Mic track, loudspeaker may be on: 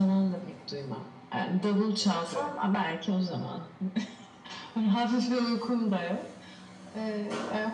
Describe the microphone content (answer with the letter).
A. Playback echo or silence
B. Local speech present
B